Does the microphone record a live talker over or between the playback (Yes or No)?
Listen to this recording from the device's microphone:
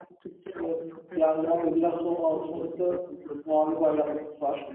Yes